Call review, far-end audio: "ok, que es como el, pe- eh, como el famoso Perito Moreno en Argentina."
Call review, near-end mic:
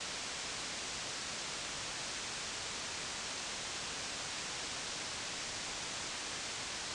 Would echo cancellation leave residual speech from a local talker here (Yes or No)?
No